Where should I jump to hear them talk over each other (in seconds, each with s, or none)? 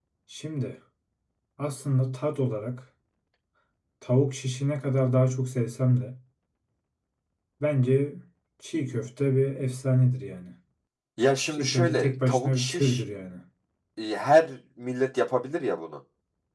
11.5 s